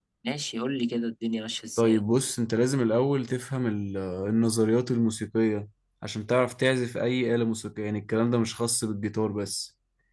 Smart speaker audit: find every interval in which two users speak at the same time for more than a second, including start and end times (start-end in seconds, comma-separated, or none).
none